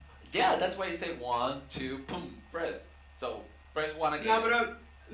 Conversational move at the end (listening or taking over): taking over